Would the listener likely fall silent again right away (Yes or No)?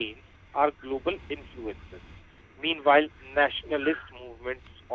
Yes